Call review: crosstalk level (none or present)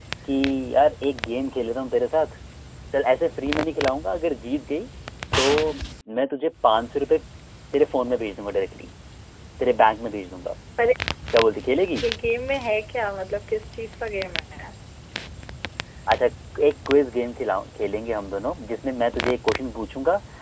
none